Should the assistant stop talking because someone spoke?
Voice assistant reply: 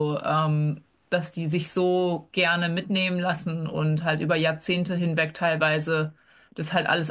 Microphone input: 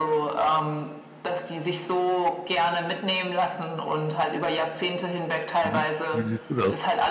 Yes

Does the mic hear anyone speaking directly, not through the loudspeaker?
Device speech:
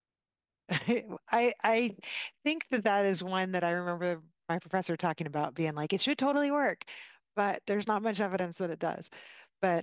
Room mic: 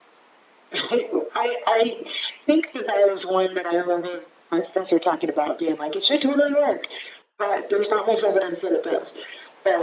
No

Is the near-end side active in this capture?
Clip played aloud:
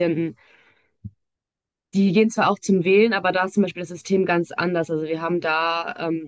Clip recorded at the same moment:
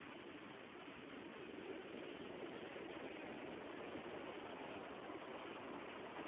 No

